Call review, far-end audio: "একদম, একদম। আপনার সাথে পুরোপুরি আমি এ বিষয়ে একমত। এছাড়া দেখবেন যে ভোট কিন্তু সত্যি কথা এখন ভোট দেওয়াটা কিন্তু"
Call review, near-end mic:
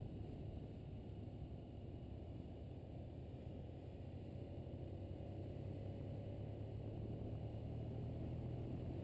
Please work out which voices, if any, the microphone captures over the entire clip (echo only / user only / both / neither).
neither